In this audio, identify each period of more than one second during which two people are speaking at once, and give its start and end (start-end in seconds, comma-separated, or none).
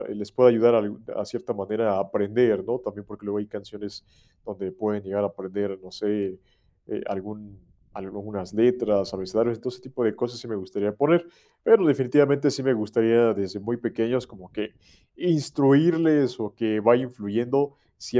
none